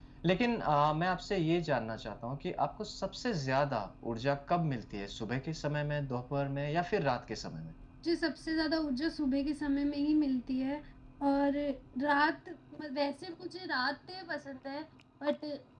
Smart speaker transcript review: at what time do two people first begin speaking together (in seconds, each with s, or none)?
none